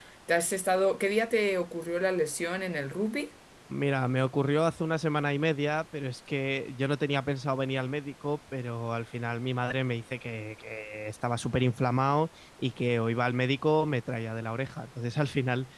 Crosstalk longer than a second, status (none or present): none